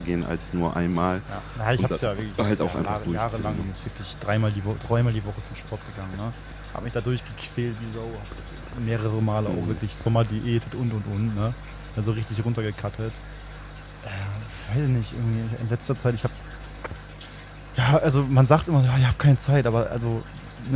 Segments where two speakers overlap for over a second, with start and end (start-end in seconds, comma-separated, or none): 2.4-3.7